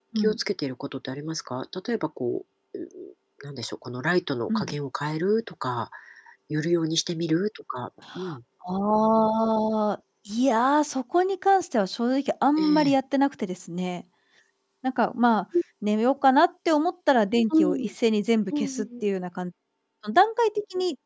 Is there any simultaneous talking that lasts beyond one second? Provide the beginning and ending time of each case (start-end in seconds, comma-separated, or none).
none